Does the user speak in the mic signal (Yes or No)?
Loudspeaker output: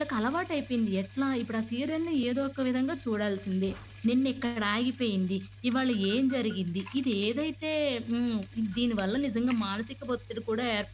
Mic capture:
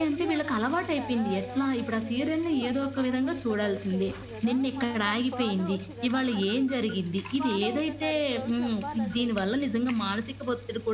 Yes